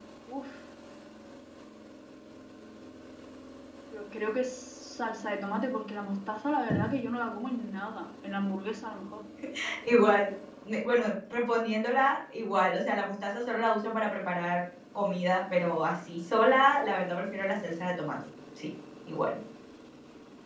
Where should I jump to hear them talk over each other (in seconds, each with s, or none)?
none